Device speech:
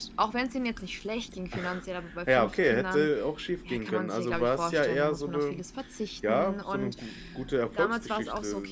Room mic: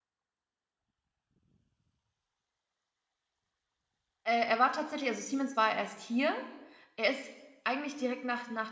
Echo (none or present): none